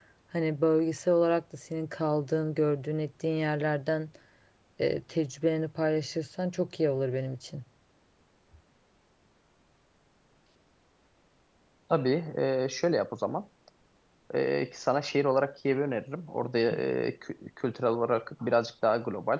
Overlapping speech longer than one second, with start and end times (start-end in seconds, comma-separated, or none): none